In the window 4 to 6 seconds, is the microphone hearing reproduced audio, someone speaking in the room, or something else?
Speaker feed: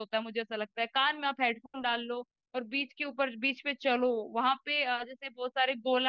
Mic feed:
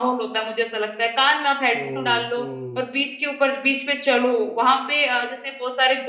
echo only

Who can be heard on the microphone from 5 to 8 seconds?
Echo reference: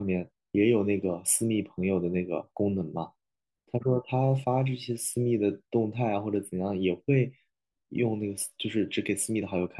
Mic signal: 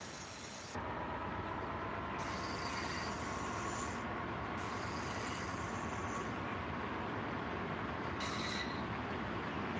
neither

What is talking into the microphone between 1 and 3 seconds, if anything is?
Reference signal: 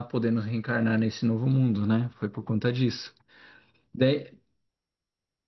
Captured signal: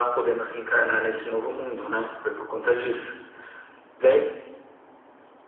echo only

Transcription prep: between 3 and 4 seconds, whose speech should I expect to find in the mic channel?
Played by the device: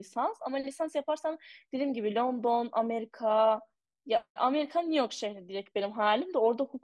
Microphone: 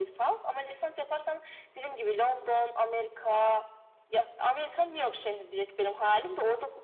echo only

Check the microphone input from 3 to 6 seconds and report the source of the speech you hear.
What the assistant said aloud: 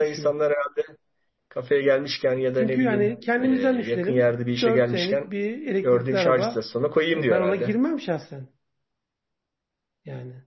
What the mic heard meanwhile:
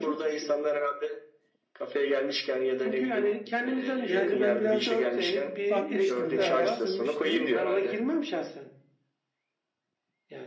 both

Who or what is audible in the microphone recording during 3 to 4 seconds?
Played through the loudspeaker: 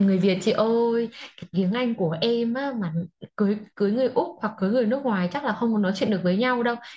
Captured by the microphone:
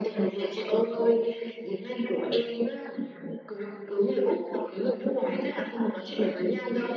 echo only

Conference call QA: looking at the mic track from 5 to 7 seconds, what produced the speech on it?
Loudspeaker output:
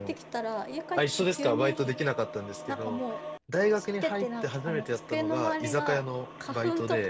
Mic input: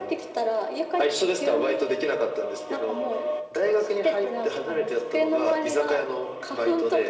echo only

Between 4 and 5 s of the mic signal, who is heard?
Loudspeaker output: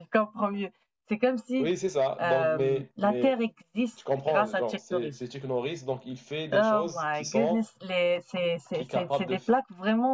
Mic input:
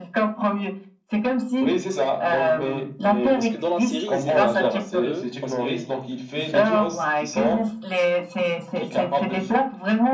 both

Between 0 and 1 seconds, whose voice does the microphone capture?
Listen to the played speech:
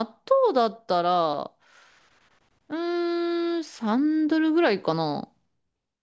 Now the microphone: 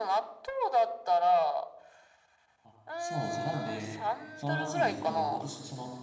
echo only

